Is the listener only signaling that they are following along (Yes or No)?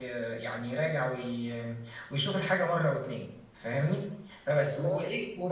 Yes